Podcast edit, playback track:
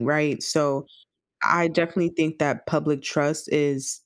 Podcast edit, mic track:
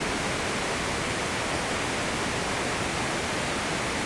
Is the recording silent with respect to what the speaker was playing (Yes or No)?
Yes